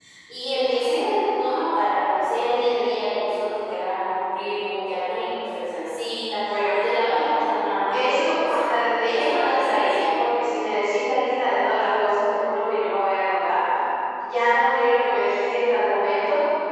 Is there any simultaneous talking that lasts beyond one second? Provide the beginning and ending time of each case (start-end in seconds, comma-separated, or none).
7.9-10.2